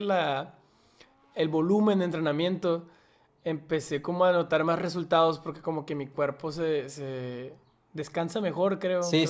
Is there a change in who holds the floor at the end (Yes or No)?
Yes